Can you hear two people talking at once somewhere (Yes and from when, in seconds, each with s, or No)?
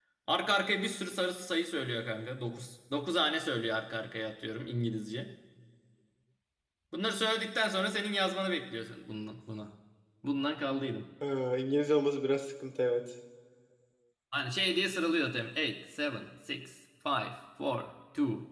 No